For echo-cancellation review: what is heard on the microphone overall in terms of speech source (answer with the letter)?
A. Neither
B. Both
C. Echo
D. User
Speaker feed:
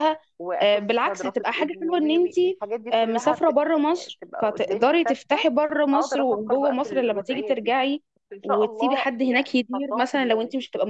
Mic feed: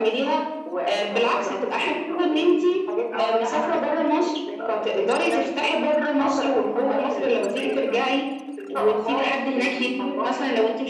B